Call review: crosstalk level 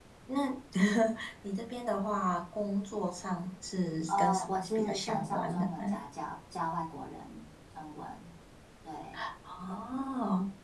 present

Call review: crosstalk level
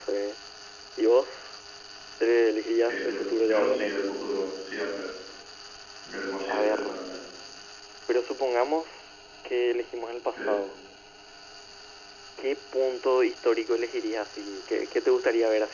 present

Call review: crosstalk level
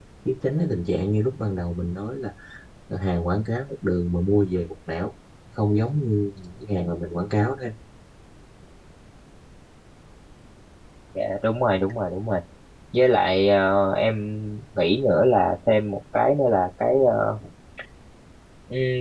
none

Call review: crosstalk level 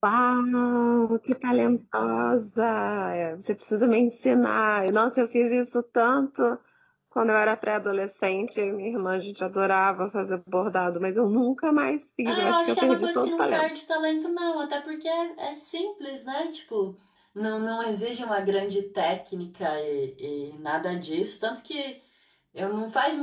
present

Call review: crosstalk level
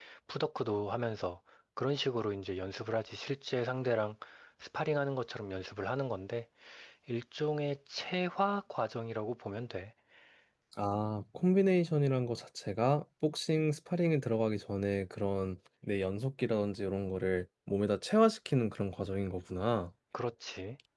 none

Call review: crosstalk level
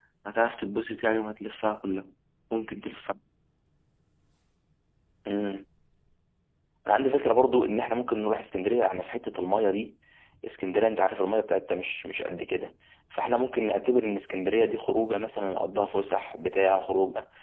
none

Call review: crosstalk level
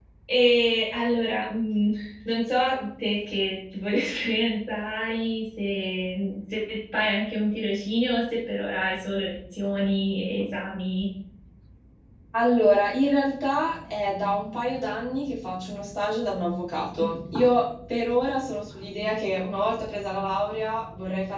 none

